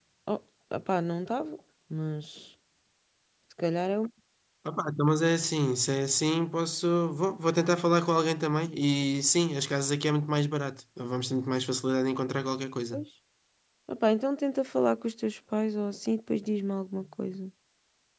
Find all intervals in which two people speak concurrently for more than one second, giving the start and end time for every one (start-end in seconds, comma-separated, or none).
none